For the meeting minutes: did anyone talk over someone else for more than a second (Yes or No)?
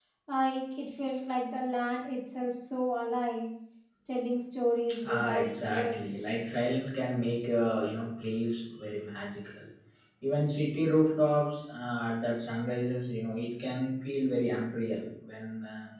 Yes